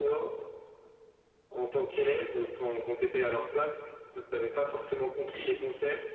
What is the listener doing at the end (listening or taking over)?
listening